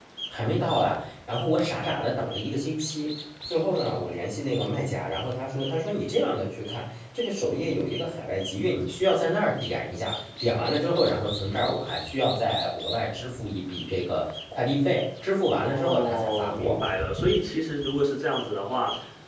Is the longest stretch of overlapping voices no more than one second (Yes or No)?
No